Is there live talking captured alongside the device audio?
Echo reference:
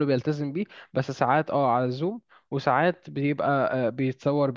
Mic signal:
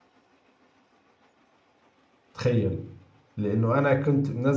Yes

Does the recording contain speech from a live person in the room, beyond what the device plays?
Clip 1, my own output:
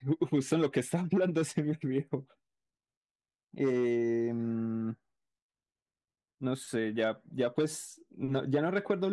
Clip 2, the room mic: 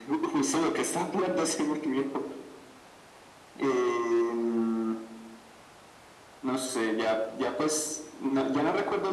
No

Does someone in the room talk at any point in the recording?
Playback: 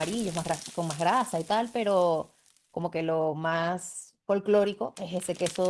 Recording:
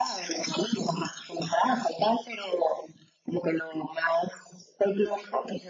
No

